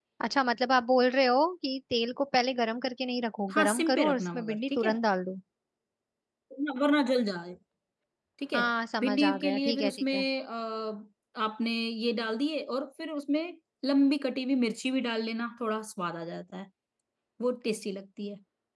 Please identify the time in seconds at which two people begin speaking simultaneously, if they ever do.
3.5 s

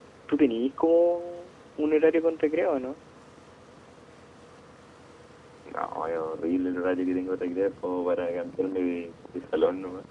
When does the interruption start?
none

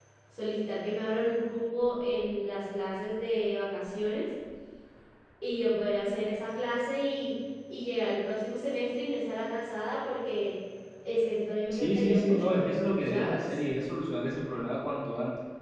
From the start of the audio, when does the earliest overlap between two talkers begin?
11.7 s

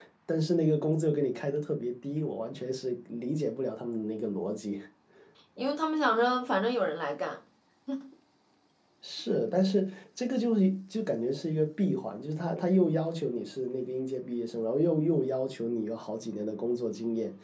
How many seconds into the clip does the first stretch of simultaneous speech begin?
none

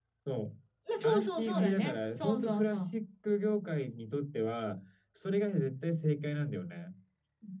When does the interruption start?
1.0 s

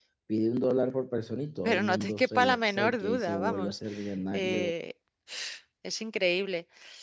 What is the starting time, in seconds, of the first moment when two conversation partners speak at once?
1.6 s

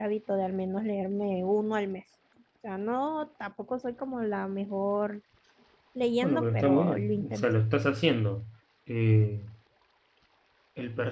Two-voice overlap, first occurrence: 6.2 s

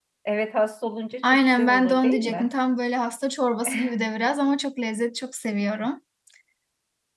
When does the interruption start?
1.2 s

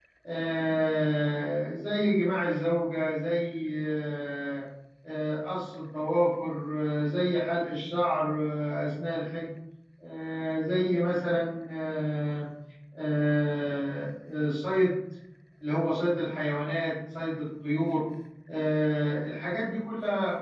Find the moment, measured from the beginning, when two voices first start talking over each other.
none

